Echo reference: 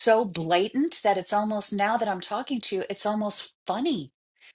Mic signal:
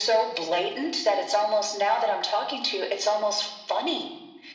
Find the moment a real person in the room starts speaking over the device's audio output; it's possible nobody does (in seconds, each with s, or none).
none